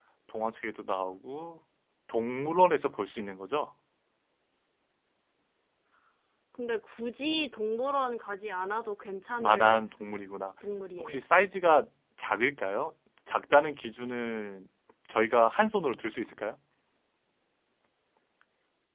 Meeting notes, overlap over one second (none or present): none